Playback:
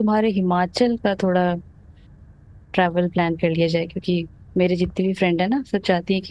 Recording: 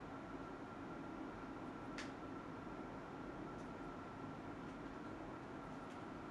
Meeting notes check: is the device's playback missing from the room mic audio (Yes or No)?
Yes